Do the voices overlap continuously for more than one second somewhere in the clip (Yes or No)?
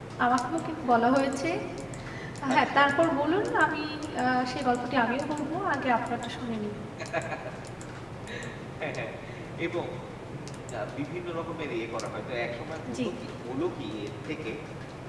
No